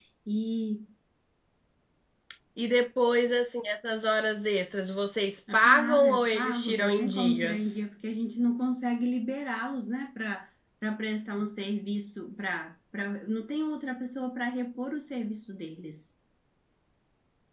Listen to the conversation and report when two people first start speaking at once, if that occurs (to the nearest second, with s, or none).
5 s